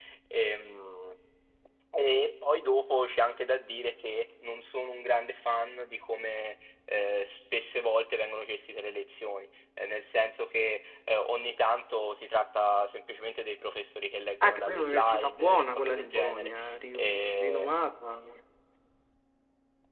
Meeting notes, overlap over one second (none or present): present